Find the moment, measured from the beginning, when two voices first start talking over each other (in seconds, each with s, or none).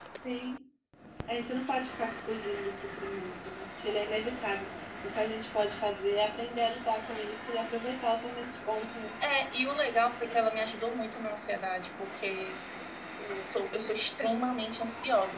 none